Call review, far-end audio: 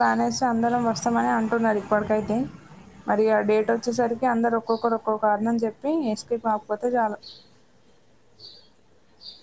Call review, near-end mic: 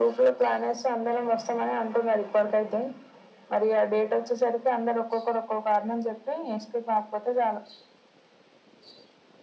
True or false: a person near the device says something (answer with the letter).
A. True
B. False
B